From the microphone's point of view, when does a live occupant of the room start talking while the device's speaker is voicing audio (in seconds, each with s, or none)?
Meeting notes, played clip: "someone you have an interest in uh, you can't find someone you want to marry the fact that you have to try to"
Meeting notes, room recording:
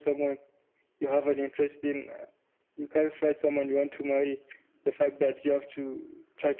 none